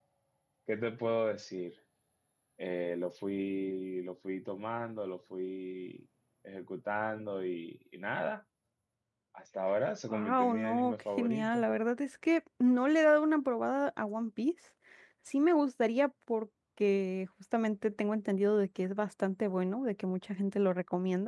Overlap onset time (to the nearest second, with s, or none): 10 s